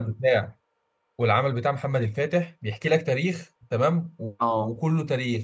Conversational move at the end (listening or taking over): listening